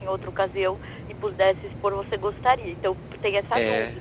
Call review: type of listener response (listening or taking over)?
taking over